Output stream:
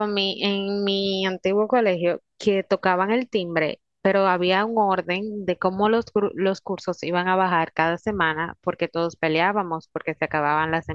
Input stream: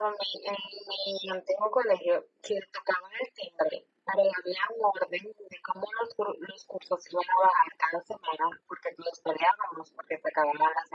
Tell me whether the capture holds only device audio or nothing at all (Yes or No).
Yes